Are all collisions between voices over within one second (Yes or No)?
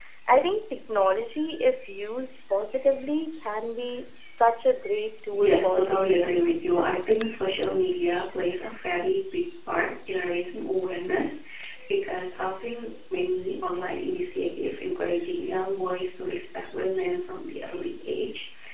No